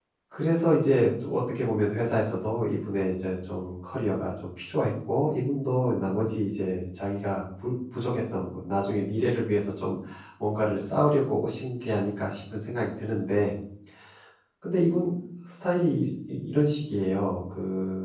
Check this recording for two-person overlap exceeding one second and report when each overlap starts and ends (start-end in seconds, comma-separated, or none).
none